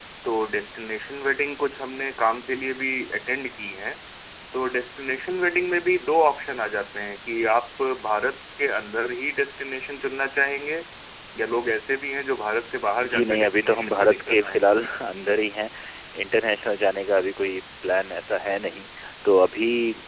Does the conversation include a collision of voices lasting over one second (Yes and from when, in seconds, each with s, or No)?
Yes, from 13.0 s